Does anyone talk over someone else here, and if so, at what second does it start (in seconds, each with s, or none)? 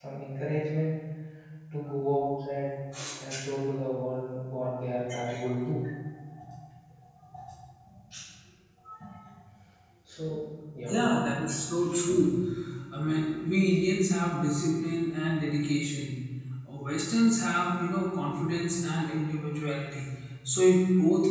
none